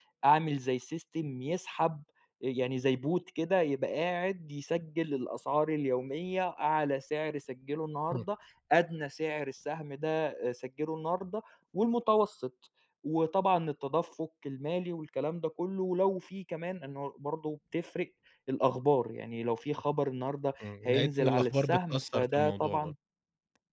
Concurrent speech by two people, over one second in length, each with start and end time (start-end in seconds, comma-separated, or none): 20.9-22.9